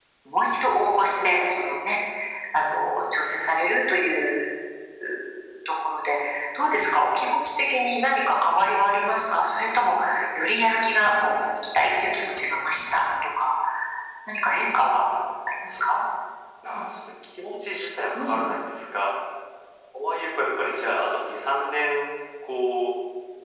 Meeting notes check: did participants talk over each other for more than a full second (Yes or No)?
No